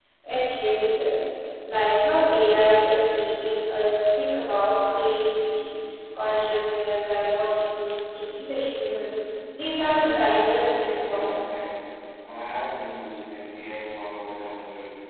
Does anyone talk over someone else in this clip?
Yes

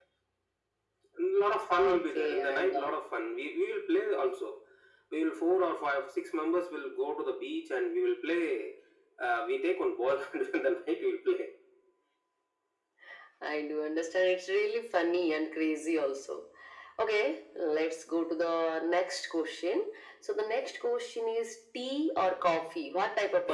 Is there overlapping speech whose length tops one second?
Yes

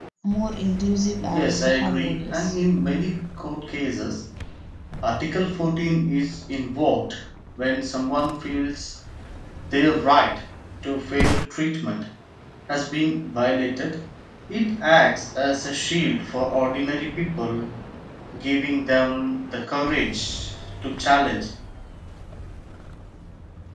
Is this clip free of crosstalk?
No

